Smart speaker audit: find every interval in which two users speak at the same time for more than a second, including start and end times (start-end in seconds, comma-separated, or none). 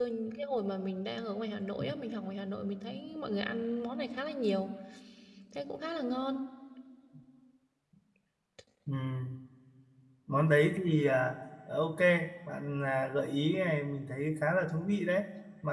none